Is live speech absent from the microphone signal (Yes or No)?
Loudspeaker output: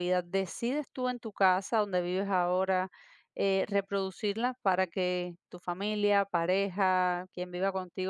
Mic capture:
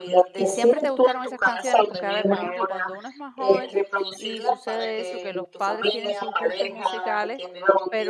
No